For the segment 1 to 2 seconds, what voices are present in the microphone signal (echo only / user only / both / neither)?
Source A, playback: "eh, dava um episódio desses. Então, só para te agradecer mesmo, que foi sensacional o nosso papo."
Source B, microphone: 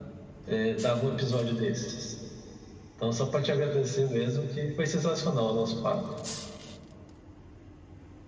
echo only